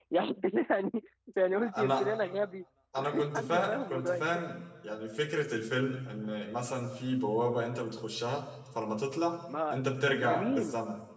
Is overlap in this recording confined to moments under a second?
No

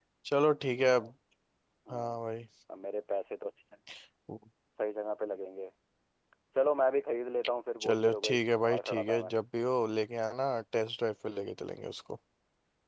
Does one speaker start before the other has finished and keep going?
Yes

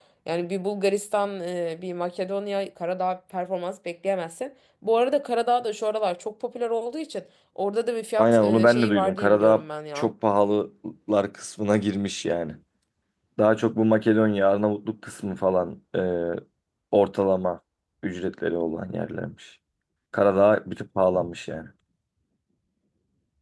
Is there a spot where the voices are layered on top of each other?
Yes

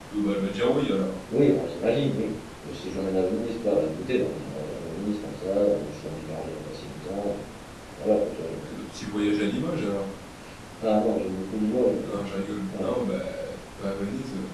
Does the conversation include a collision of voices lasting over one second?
No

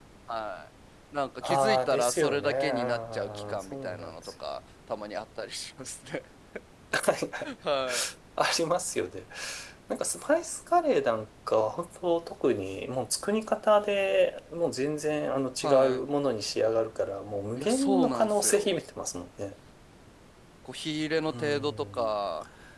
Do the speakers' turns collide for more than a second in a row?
Yes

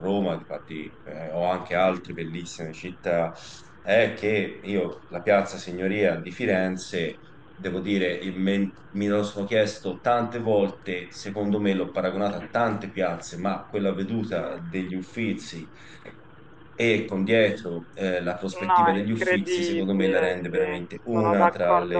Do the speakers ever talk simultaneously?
Yes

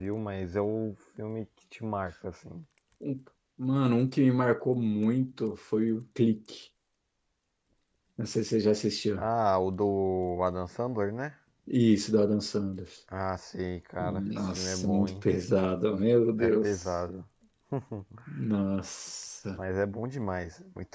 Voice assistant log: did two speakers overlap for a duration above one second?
Yes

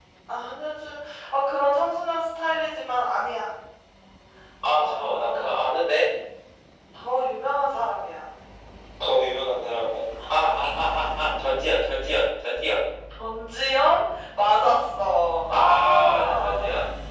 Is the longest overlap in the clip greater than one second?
Yes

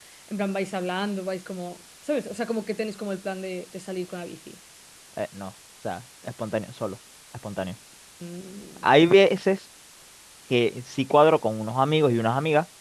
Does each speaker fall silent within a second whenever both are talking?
Yes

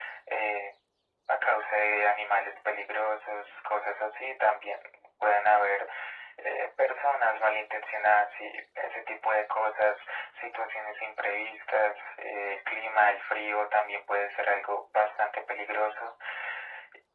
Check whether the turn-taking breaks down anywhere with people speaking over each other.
No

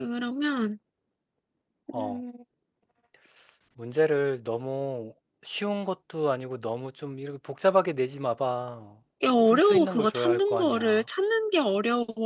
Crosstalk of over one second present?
Yes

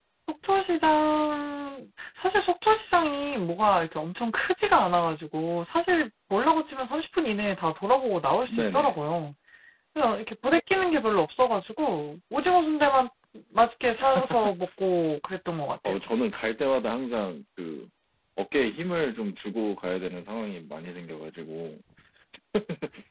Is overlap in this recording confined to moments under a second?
Yes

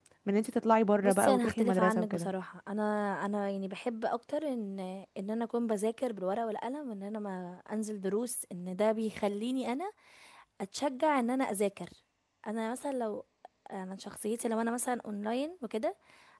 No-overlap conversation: No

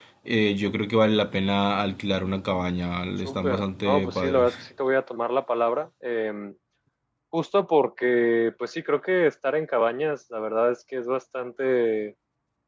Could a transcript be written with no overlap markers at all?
No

